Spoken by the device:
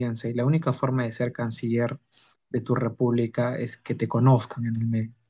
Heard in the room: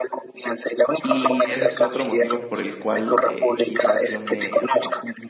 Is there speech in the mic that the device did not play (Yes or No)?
Yes